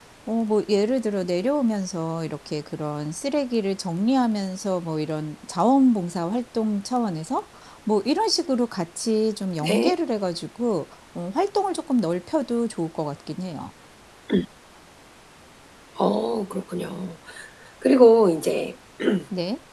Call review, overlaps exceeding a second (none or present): none